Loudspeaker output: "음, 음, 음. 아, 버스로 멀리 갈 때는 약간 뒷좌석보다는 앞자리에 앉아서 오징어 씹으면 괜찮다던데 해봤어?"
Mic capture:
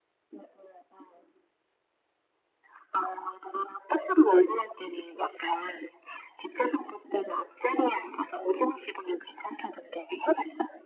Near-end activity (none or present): none